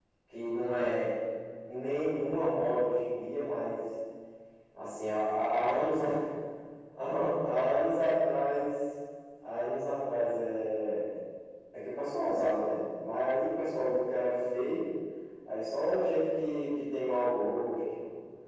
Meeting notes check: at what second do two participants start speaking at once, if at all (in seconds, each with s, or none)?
none